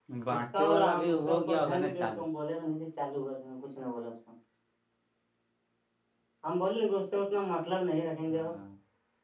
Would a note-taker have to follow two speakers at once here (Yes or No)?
Yes